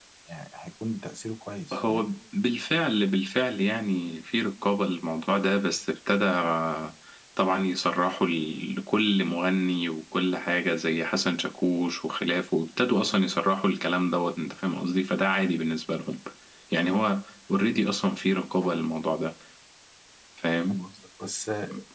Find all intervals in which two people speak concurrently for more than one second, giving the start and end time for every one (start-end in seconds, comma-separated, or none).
none